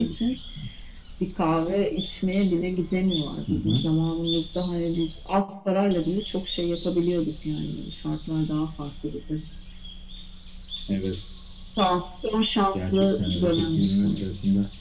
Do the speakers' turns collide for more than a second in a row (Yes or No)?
Yes